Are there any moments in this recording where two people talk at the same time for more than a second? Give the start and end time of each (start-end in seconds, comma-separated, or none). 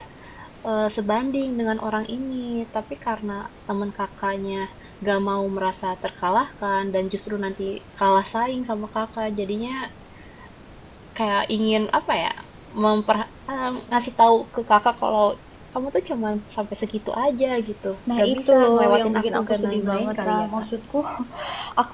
18.2-20.6